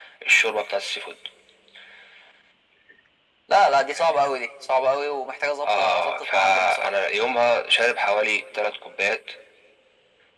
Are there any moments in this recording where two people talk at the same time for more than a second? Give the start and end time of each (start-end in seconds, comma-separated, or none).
5.6-6.9